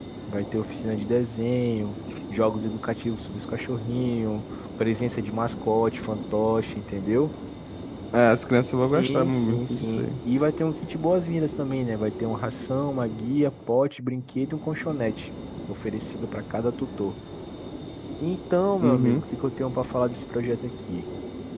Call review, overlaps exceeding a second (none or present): present